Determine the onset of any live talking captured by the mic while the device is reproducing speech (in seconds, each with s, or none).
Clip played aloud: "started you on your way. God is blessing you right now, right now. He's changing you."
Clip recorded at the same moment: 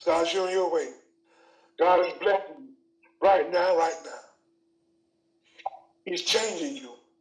none